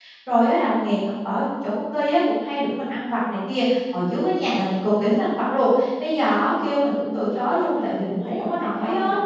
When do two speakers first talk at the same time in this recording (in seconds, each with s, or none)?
6.8 s